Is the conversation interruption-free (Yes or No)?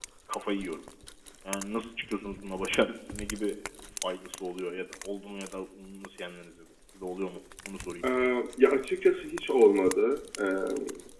Yes